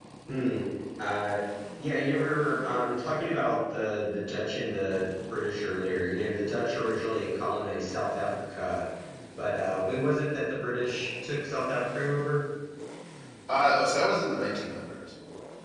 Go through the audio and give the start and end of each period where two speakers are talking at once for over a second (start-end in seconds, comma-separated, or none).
none